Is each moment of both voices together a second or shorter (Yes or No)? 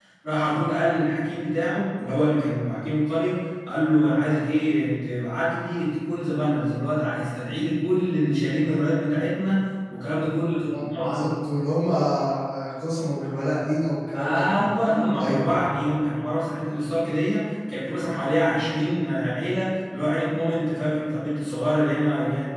Yes